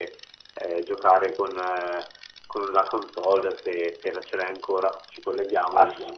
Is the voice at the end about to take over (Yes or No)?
Yes